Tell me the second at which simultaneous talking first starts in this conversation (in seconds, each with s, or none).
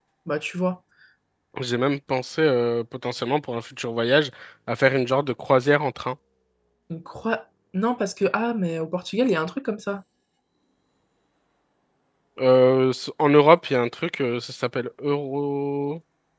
none